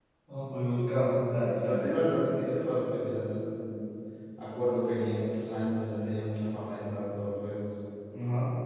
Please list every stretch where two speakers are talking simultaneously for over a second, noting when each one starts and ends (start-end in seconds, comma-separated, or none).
none